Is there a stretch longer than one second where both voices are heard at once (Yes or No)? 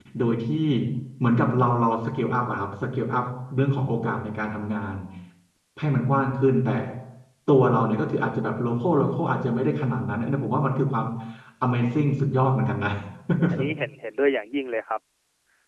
No